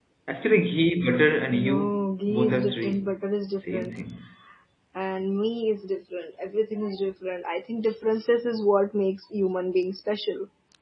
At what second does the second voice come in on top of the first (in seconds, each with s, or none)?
1.5 s